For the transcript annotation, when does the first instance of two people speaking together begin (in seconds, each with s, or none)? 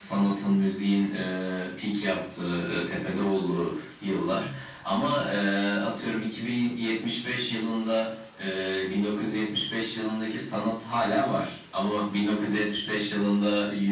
none